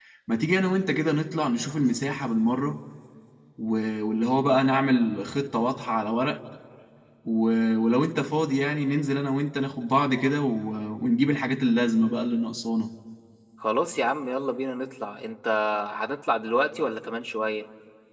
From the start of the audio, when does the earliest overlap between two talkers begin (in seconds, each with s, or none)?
none